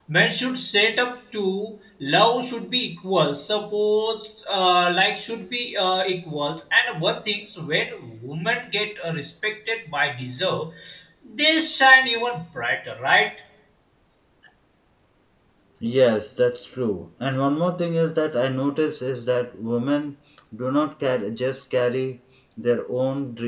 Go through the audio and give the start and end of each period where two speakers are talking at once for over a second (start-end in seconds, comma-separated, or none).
none